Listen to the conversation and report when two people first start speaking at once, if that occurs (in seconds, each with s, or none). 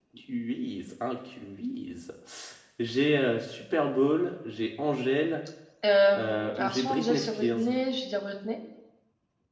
6.2 s